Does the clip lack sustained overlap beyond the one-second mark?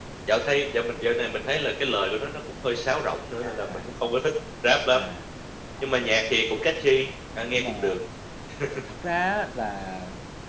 Yes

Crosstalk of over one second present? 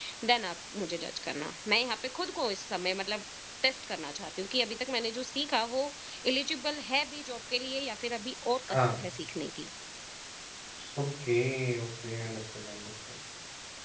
No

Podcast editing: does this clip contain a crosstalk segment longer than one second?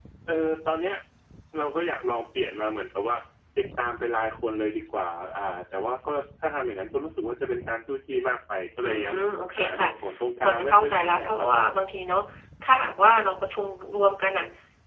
Yes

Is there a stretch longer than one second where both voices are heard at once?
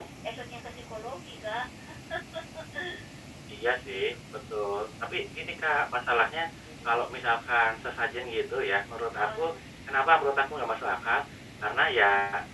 No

